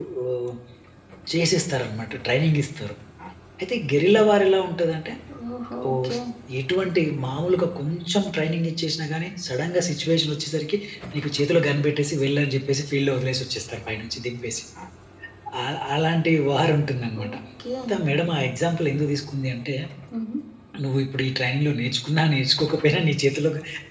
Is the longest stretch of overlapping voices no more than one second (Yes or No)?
Yes